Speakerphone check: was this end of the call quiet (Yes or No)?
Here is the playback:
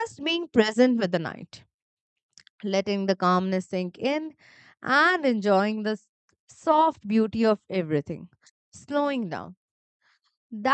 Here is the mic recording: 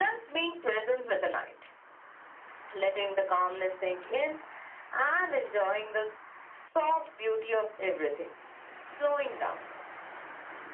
Yes